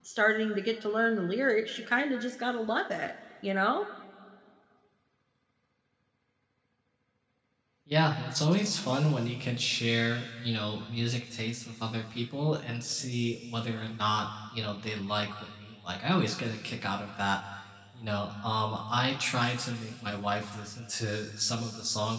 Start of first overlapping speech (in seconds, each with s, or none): none